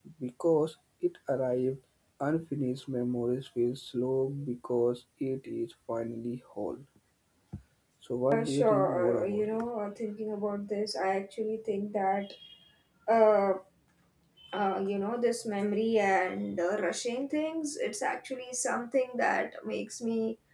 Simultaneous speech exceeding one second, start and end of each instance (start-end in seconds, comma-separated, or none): 8.3-9.7